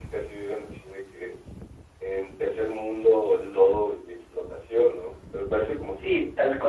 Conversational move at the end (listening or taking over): taking over